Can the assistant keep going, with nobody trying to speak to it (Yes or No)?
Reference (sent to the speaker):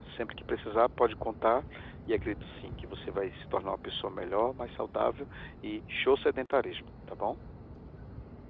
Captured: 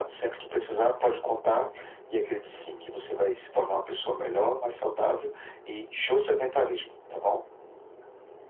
Yes